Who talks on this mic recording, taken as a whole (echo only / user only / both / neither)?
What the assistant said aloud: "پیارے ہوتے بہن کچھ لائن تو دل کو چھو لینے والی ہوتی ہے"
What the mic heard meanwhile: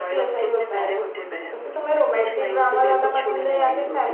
both